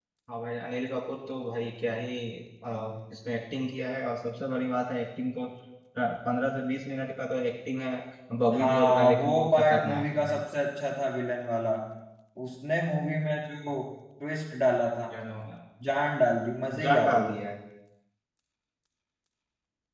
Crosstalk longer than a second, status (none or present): present